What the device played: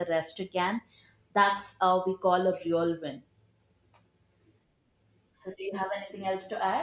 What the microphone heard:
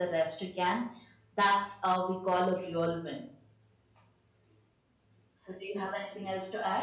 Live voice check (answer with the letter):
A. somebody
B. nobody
B